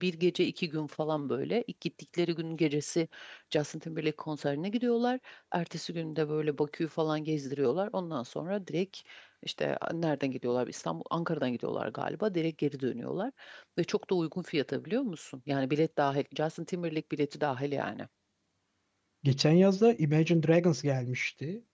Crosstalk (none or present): none